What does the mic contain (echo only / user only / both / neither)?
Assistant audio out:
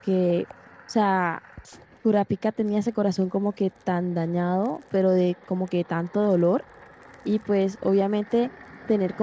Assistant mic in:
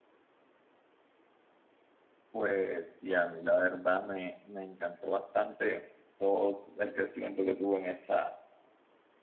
user only